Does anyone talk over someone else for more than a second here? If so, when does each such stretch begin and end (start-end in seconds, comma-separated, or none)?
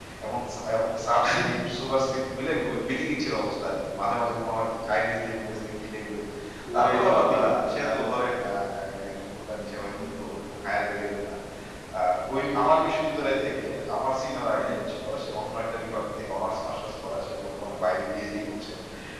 6.7-8.2